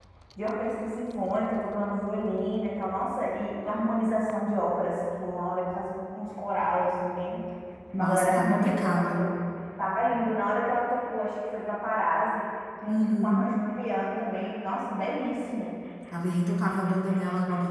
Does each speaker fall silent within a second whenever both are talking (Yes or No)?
No